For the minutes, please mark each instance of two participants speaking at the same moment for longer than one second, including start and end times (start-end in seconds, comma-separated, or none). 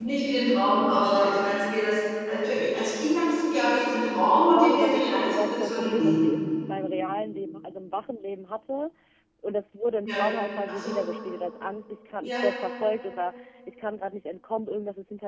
4.2-6.4